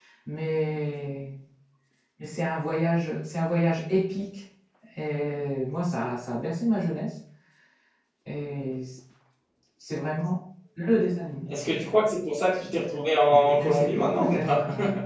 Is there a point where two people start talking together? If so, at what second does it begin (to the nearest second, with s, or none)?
13 s